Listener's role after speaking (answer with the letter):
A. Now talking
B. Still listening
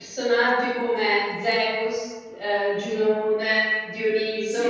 B